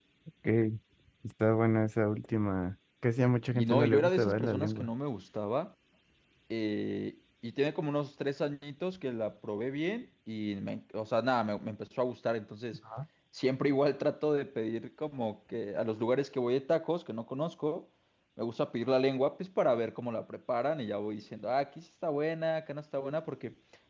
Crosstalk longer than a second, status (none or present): present